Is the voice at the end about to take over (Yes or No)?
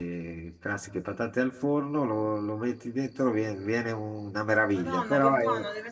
Yes